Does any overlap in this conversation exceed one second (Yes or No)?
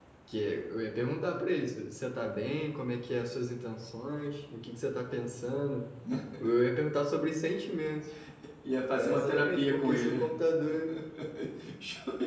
Yes